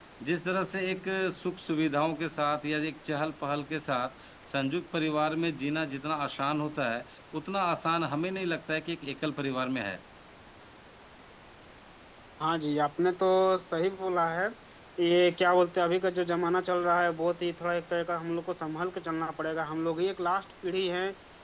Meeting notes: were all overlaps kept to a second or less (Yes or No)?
Yes